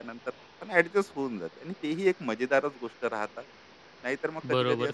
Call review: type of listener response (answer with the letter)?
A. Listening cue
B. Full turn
B